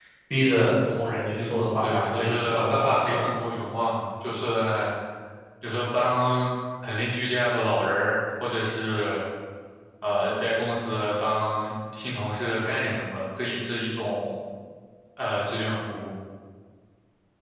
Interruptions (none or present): present